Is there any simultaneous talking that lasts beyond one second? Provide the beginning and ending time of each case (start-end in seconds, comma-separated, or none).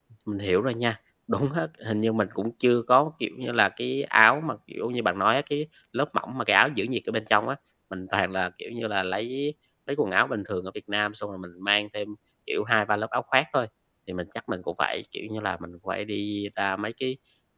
none